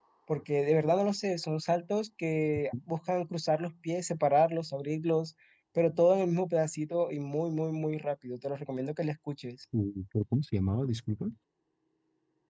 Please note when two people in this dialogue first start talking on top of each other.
none

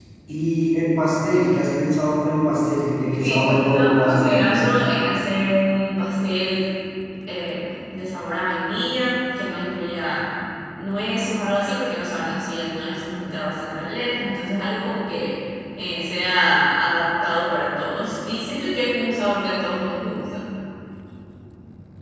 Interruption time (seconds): 3.2 s

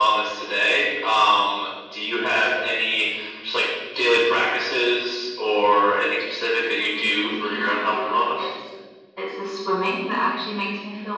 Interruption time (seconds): 6.8 s

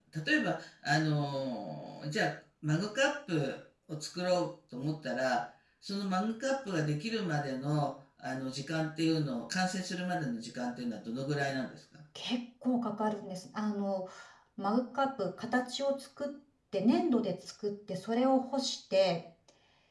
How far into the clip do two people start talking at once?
none

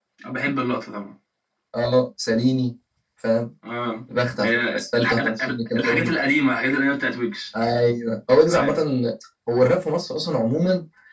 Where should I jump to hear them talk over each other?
4.4 s

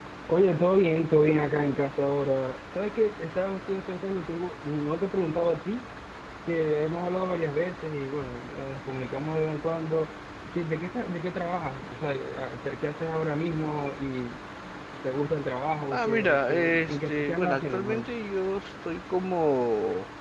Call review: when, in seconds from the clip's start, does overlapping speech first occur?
15.9 s

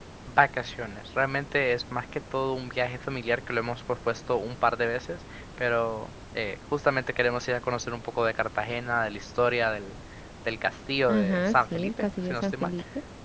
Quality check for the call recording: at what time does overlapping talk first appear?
11.1 s

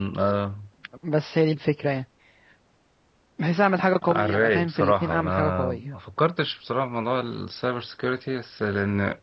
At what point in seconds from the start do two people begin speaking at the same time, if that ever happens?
4.1 s

